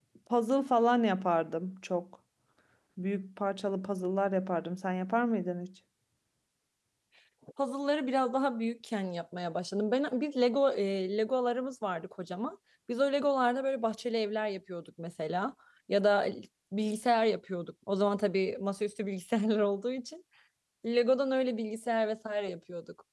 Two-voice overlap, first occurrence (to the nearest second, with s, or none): none